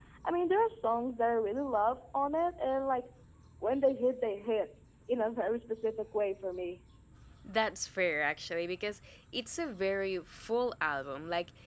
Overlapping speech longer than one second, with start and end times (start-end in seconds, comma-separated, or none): none